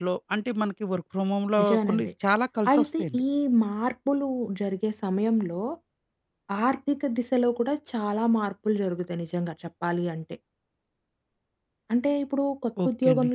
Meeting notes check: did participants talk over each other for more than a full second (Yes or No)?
No